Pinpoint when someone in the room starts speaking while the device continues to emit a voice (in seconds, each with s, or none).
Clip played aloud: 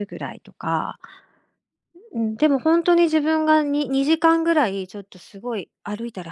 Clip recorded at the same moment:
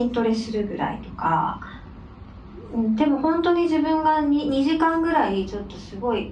none